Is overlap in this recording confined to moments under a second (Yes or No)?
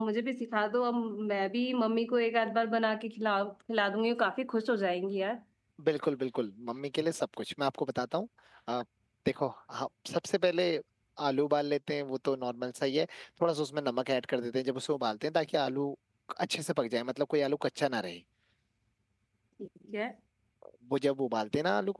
Yes